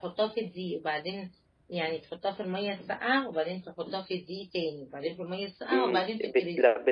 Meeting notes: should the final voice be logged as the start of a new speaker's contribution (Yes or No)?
Yes